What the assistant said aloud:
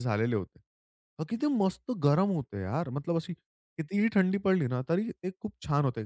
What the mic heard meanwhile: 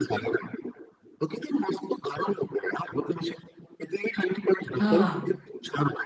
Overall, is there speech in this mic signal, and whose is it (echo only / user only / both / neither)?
both